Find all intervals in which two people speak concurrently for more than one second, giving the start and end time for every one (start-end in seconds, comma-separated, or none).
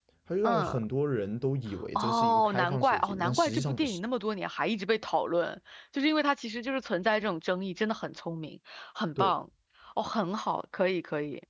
1.9-4.0